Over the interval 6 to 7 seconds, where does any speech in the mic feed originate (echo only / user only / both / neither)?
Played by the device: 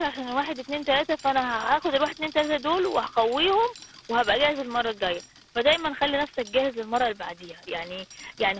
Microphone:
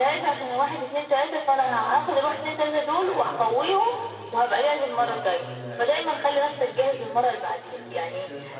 both